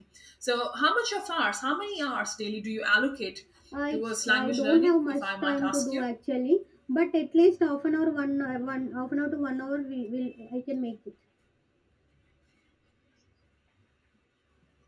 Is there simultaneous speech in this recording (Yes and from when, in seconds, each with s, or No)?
Yes, from 3.9 s